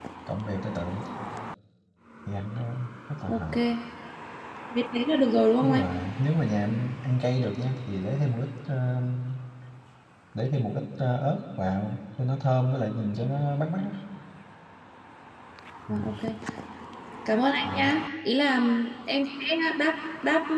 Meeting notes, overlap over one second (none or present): none